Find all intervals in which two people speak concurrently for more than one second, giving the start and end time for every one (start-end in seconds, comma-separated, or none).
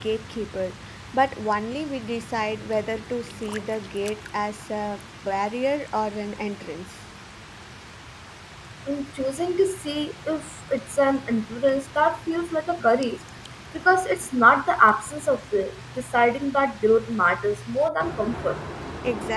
none